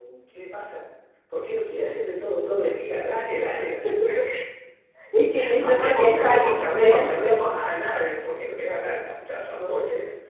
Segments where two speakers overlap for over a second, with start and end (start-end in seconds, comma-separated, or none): 5.6-7.4